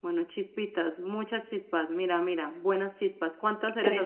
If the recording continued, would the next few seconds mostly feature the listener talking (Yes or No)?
Yes